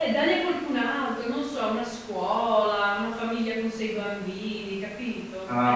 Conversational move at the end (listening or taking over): taking over